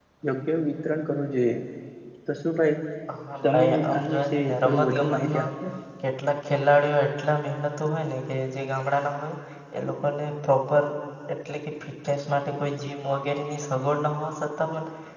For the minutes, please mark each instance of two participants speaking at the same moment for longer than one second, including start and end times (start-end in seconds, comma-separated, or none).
3.4-5.5